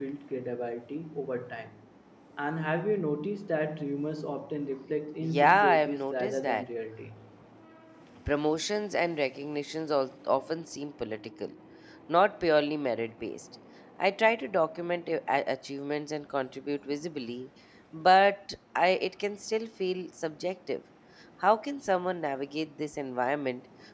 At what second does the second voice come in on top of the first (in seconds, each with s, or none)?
5.2 s